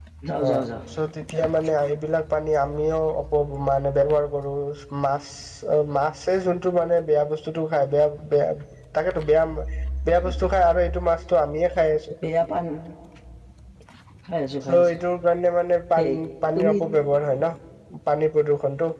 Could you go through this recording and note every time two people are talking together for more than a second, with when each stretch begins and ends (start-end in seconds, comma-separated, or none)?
none